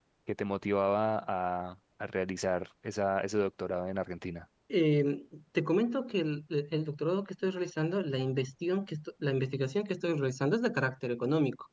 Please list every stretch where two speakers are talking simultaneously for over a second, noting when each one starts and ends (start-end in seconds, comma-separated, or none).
none